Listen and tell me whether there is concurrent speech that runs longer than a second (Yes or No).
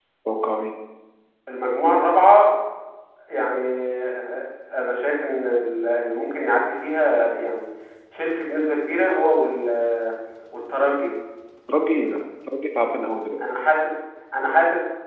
No